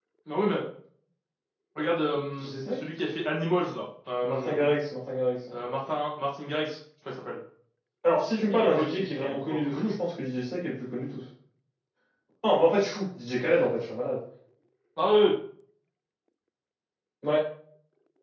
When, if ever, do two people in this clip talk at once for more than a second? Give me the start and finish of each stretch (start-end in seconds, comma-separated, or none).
8.5-9.9